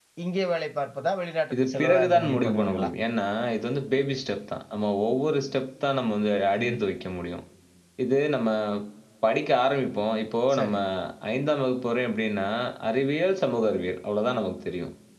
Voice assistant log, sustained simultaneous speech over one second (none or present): present